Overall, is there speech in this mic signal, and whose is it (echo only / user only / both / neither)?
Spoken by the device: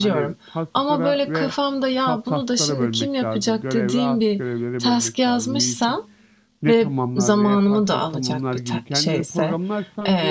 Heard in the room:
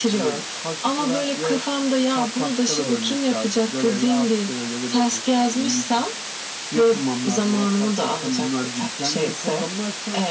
echo only